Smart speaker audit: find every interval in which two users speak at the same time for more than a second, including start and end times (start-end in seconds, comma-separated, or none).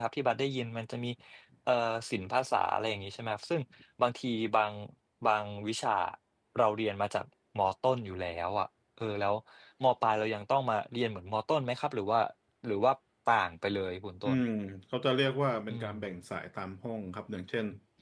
none